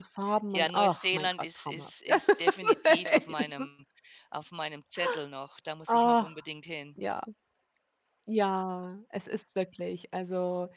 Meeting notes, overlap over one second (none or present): present